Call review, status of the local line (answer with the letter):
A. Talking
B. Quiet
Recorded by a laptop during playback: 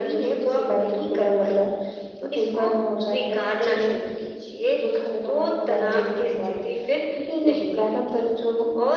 B